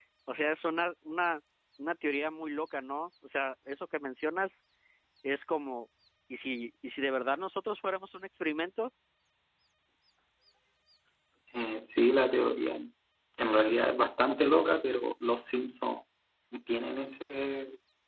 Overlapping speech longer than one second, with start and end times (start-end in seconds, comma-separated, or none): none